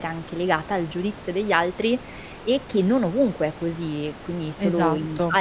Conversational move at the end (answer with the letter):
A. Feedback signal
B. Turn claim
A